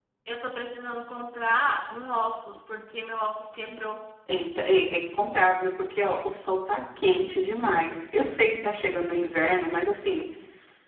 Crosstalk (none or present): none